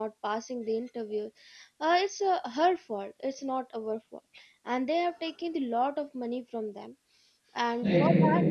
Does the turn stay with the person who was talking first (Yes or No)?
Yes